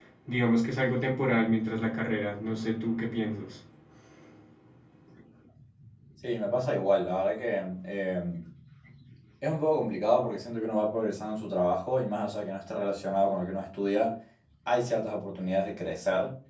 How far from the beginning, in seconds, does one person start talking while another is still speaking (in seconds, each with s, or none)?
none